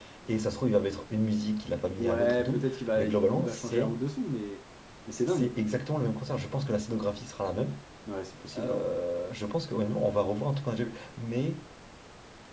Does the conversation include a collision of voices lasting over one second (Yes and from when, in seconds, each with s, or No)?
Yes, from 2.0 s